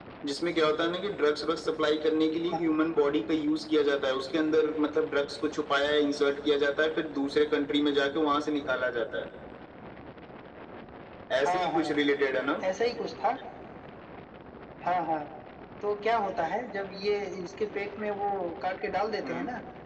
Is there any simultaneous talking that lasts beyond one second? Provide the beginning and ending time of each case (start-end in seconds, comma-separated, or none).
none